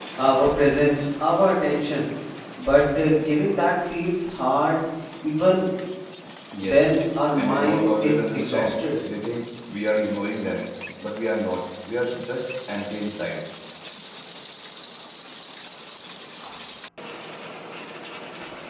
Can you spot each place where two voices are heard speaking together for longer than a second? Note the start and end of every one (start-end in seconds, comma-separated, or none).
7.4-8.7